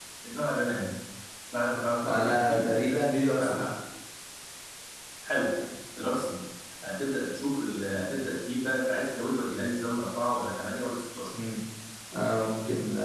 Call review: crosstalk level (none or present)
present